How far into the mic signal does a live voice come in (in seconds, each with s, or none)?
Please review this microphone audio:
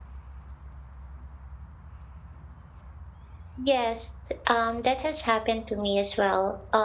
3.6 s